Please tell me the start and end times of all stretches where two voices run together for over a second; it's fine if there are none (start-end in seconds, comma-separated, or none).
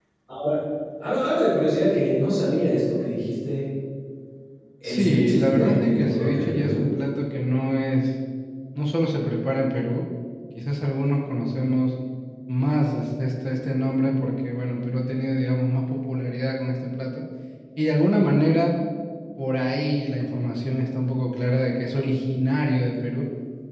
4.8-6.8